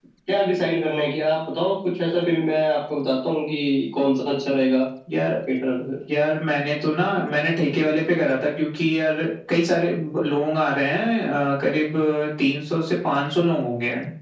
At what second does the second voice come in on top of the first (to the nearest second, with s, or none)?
none